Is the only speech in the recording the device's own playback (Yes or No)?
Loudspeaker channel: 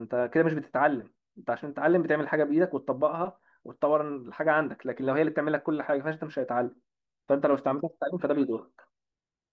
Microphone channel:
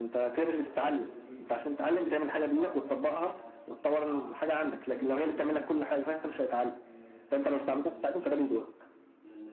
No